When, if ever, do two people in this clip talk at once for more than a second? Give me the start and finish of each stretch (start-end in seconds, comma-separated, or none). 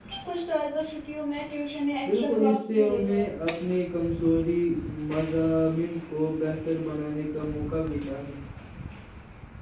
2.0-3.2